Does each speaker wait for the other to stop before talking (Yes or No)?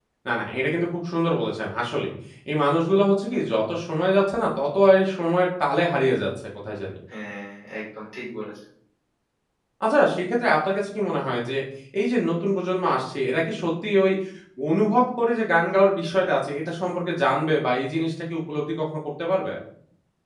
Yes